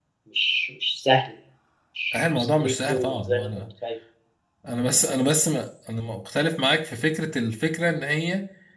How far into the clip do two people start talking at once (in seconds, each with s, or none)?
2.1 s